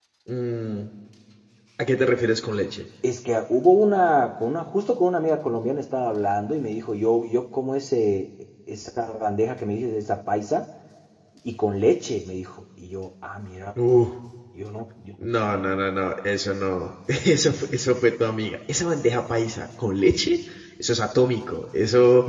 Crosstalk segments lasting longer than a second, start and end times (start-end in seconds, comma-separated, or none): none